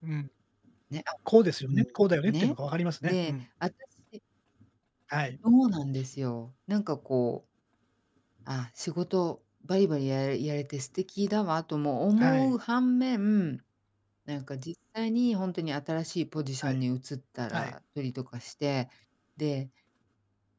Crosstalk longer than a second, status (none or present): none